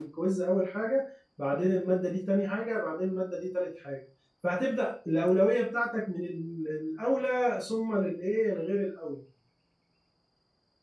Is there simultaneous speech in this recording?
No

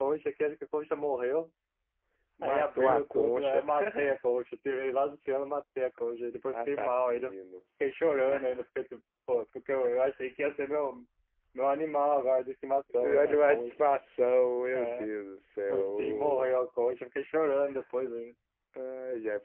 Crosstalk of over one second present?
Yes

